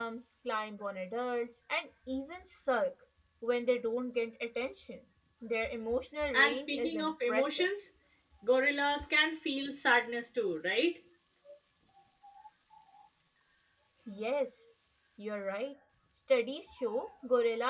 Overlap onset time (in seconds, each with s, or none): 6.3 s